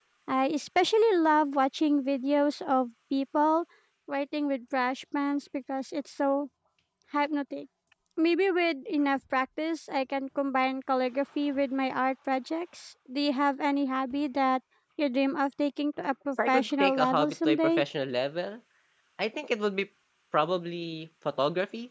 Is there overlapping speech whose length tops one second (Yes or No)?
Yes